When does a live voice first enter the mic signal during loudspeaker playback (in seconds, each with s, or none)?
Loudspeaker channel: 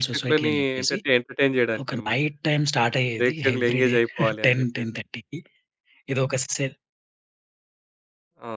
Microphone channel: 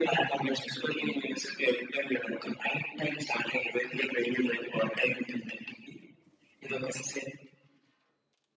none